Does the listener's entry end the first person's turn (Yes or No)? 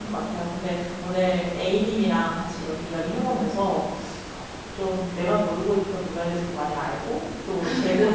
No